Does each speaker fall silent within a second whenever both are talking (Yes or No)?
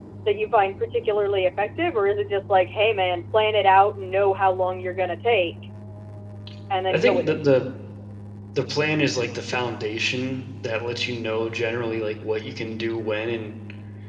Yes